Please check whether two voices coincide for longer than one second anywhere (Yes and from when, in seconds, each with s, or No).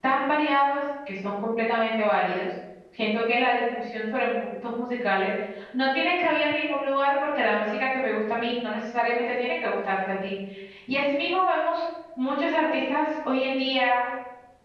No